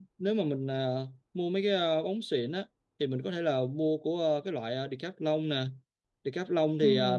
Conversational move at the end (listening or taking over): listening